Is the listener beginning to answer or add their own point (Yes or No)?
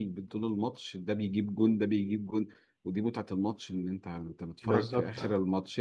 No